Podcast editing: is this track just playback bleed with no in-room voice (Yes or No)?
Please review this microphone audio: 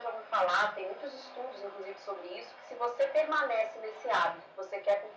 Yes